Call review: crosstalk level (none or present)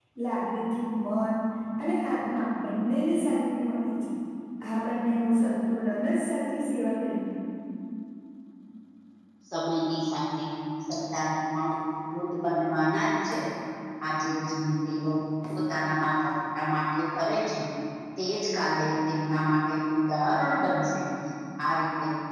none